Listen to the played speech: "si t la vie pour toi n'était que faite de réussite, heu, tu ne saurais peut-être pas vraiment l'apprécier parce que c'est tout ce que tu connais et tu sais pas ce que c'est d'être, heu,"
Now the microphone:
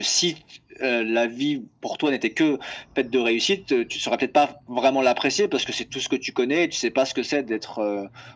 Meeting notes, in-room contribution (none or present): none